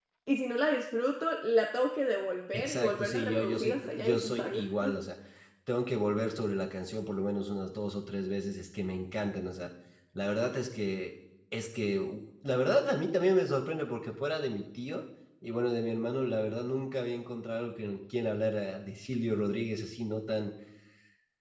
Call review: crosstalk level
present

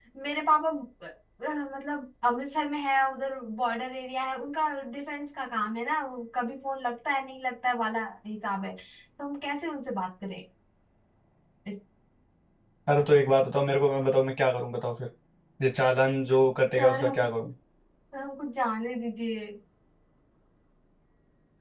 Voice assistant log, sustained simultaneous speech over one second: none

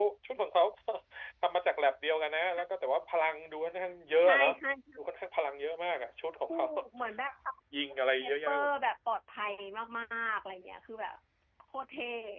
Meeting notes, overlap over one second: none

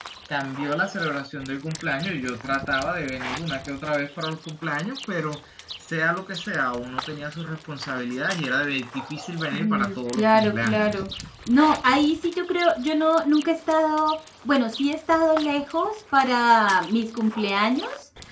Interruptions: present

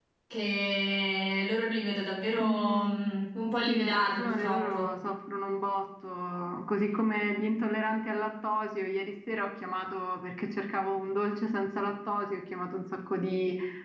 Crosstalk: present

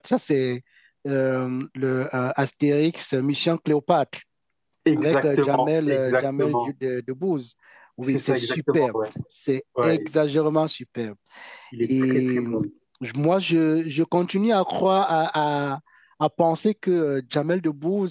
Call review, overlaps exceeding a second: present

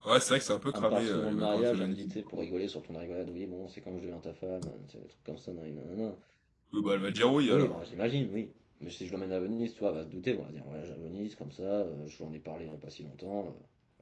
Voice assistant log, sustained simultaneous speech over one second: present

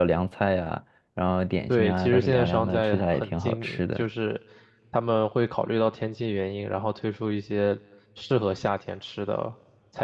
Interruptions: present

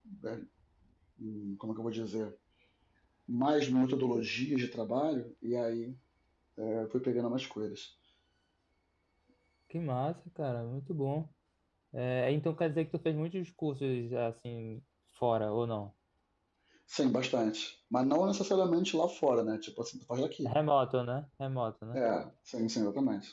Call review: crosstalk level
none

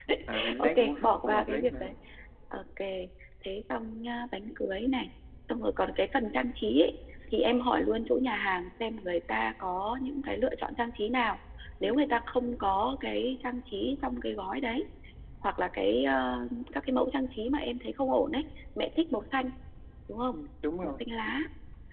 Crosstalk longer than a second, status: present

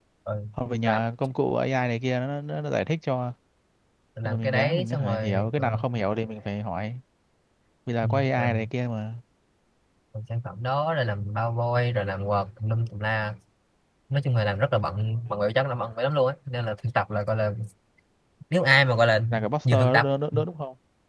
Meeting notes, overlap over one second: present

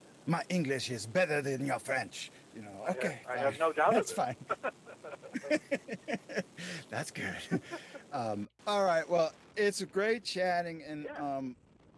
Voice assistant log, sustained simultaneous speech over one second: present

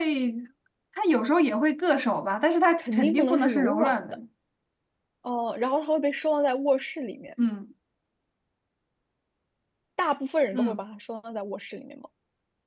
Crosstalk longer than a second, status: present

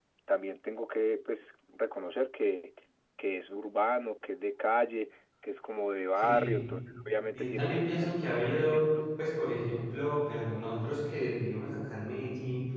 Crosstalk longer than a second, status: present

